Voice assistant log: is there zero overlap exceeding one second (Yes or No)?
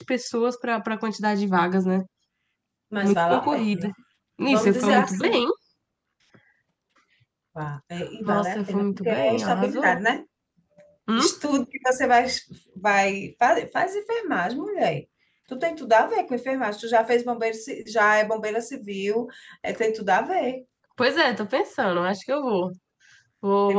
No